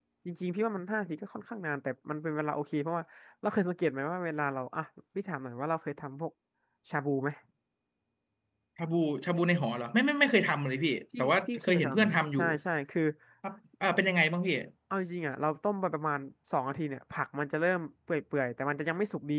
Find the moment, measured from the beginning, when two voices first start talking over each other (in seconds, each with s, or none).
11.1 s